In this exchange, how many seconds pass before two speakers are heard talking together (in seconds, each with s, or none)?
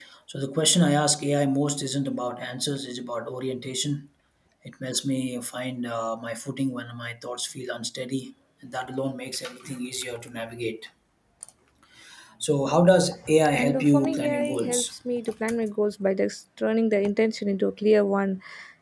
13.5 s